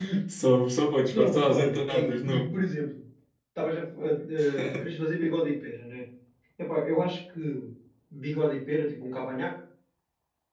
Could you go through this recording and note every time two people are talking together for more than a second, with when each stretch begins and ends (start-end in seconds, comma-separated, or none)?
1.1-2.5